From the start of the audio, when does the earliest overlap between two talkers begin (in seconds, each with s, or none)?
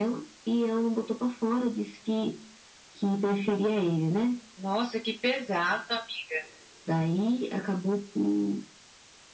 none